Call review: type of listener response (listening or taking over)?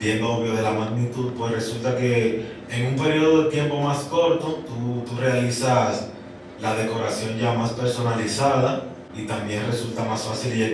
listening